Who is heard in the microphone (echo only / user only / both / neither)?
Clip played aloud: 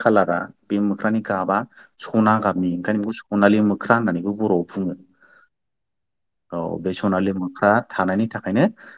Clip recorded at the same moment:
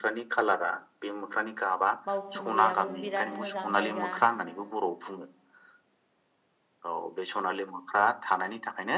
both